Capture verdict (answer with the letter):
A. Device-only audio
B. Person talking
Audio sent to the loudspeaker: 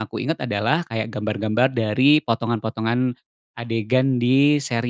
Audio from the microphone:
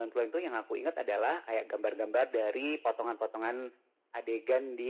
A